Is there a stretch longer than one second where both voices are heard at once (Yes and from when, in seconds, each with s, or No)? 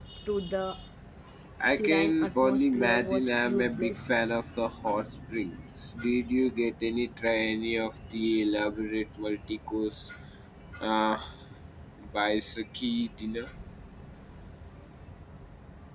Yes, from 1.6 s